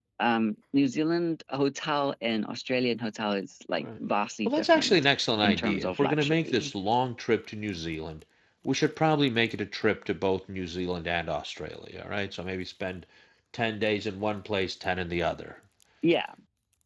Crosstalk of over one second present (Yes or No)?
Yes